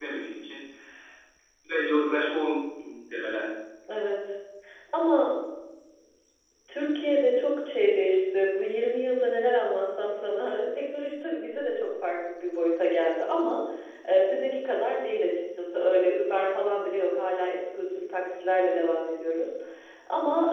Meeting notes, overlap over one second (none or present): none